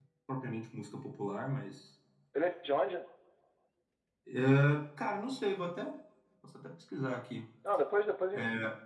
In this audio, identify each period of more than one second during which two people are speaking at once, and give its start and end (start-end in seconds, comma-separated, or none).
none